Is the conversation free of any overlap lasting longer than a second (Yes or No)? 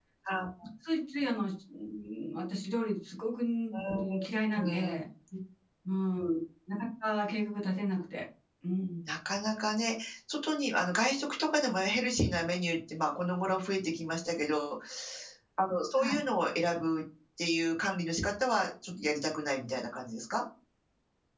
Yes